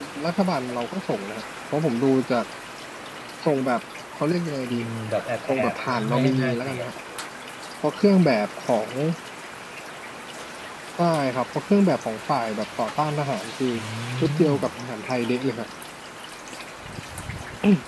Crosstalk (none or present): present